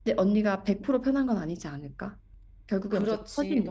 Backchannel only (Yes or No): No